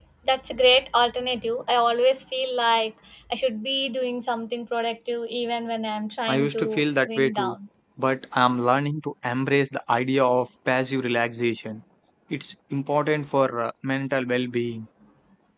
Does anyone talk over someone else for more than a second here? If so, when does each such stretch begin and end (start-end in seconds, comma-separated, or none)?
6.3-7.5